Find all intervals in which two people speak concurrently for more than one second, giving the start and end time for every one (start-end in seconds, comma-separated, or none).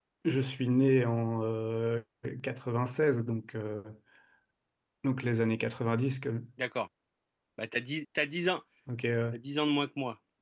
none